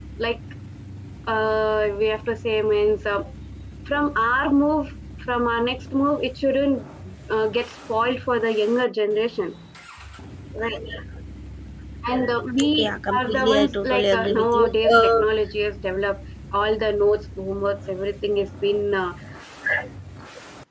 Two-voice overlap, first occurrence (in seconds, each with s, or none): 12.8 s